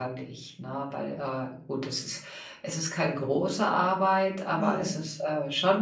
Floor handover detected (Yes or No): No